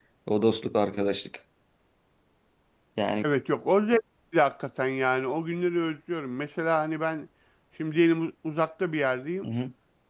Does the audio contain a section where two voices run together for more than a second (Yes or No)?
No